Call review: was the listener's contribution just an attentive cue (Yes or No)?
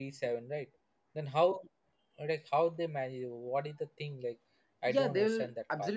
No